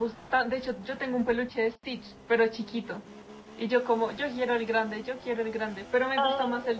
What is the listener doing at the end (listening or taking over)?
listening